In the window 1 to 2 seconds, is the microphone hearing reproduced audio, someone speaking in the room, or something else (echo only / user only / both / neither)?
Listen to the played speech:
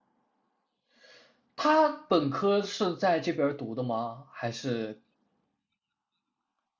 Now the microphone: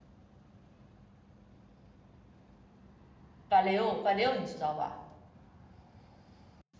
neither